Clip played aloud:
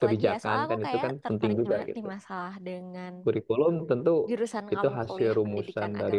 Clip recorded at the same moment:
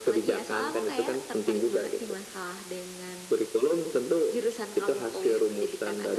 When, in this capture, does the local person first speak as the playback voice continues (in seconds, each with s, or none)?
none